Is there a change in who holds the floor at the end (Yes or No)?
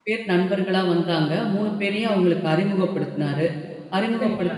No